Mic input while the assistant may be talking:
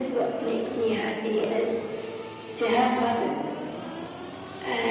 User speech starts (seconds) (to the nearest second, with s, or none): none